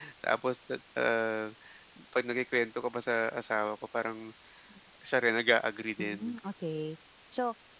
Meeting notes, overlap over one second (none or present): none